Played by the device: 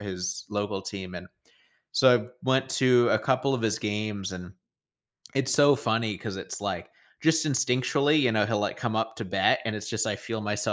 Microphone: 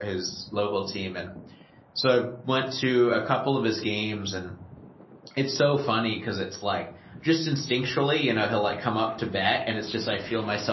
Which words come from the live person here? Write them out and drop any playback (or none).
none